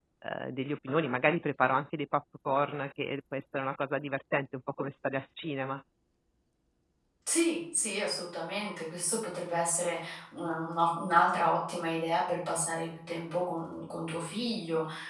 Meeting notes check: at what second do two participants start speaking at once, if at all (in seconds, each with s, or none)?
none